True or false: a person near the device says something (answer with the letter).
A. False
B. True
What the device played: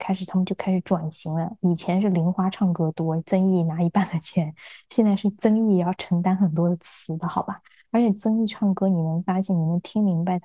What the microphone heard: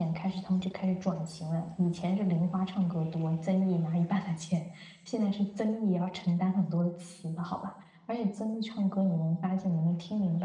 A